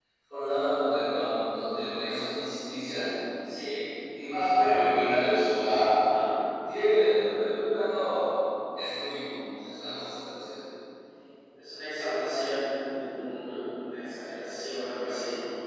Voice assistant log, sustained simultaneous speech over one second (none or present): none